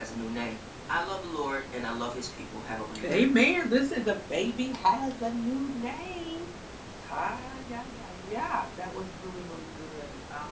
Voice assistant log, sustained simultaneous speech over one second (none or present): none